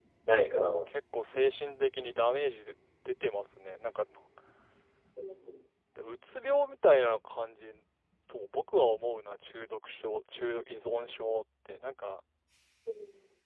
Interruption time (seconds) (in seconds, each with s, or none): none